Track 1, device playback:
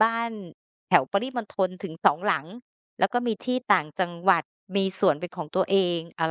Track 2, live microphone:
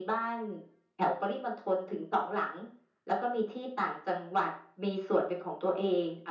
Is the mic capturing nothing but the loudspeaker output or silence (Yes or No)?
Yes